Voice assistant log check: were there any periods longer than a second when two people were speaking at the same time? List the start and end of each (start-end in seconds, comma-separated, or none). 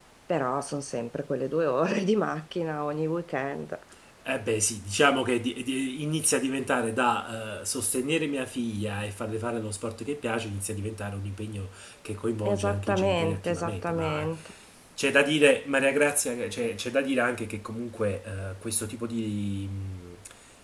12.4-14.3